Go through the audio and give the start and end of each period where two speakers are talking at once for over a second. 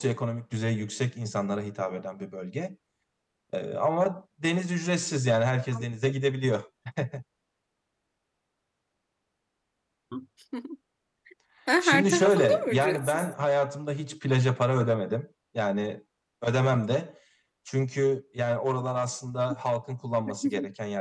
11.8-13.3

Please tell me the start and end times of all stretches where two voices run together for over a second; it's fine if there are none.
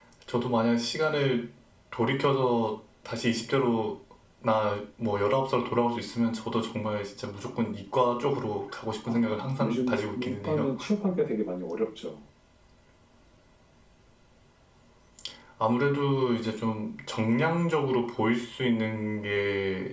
9.1-10.7

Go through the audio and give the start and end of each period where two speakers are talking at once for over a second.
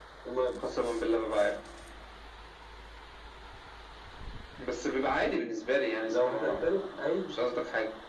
6.1-7.3

